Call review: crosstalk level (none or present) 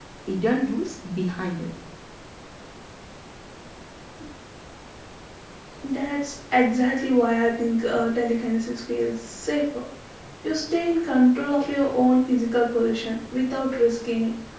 none